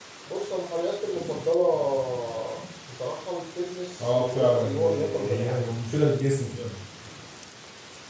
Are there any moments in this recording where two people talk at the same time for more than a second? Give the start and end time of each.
4.0-5.7

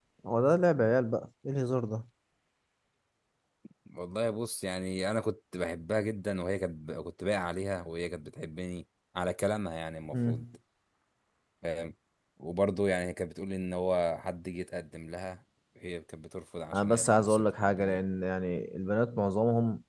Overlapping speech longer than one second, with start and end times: 16.7-18.0

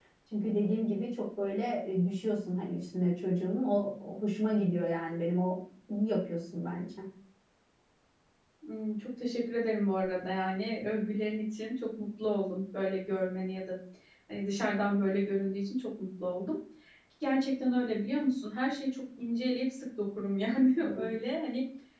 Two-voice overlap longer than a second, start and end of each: none

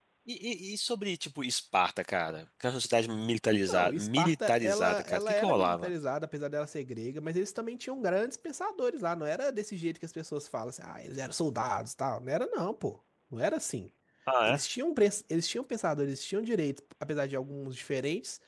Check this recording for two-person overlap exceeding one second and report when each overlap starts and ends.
3.7-5.9

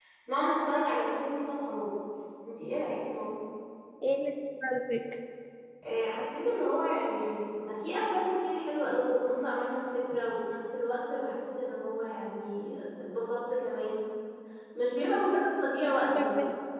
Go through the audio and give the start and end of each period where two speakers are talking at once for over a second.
none

